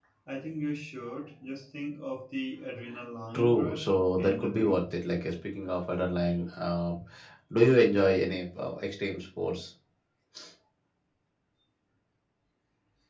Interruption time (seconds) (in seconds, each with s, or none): 3.3 s